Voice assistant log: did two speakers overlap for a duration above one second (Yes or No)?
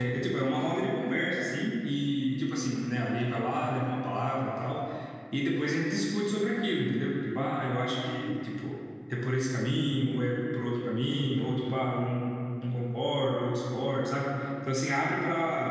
No